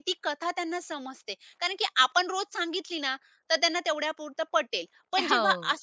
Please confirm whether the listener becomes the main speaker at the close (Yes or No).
No